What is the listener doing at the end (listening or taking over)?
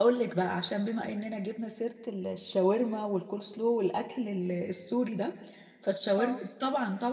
listening